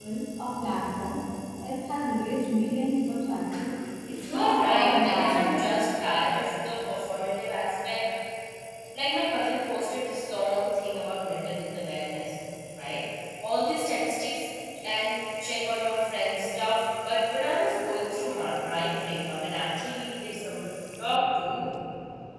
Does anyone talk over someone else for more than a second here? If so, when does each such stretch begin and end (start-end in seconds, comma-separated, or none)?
4.2-5.4